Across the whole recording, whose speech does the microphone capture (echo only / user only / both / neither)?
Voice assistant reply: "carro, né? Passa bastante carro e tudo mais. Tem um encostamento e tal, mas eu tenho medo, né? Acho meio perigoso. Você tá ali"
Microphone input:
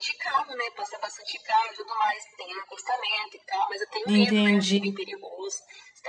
both